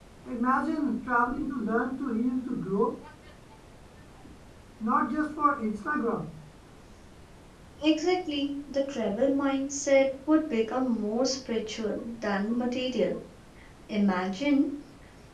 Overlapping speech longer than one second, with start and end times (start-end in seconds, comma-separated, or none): none